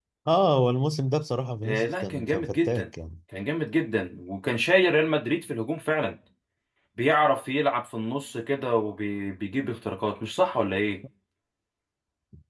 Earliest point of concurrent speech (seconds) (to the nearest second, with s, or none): 2 s